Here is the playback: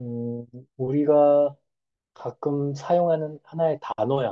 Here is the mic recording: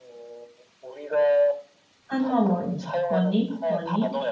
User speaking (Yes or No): Yes